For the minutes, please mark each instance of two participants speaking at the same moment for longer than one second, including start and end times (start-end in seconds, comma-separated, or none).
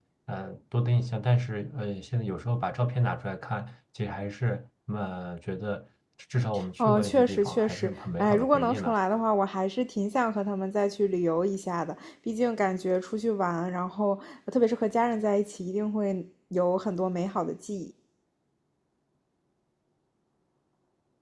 6.8-8.9